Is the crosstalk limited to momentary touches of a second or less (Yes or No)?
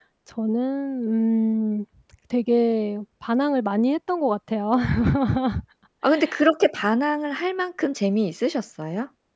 Yes